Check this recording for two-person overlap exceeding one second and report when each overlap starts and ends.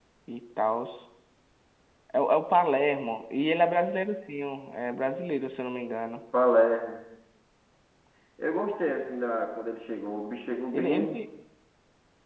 none

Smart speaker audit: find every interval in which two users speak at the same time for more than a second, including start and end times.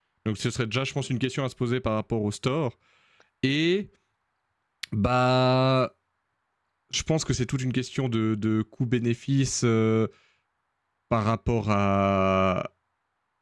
none

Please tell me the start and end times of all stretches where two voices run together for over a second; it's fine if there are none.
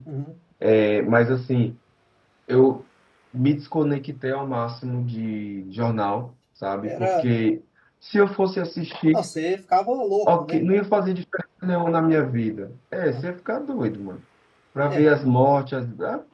none

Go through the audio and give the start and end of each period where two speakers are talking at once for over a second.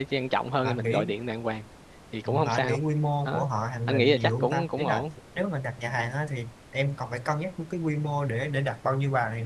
3.9-5.1

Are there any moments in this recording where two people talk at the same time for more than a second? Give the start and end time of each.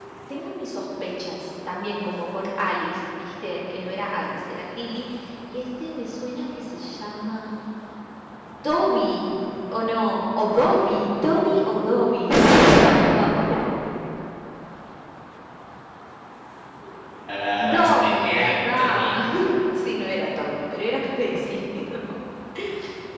17.6-19.1

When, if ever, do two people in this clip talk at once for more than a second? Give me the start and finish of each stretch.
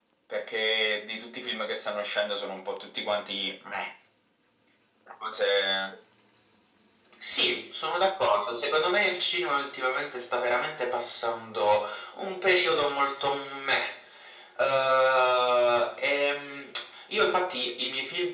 none

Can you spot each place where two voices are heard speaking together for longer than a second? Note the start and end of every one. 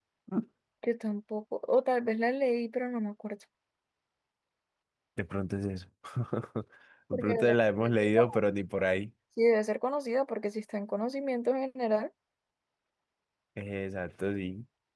7.1-8.4

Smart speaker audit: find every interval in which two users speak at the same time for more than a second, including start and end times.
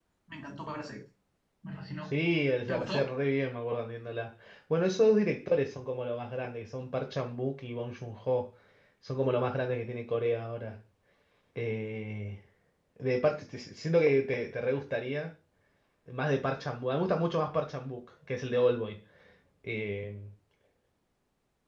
none

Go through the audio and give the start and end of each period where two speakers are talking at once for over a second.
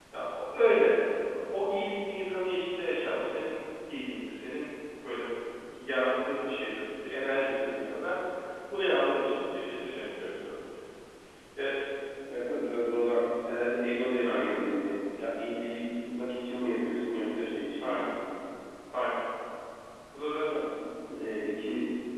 none

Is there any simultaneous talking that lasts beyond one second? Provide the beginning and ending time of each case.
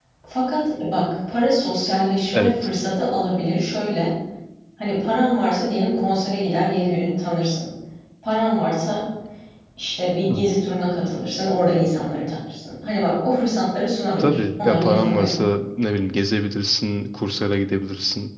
14.2-15.4

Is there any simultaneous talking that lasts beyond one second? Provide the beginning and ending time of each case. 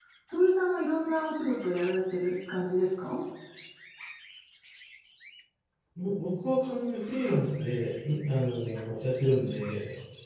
none

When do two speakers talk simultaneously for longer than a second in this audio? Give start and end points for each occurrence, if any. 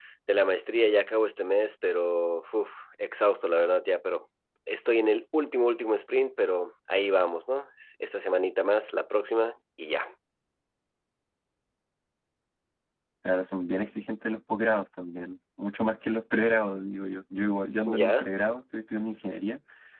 none

